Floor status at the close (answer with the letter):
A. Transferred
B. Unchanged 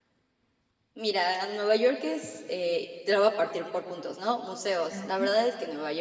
B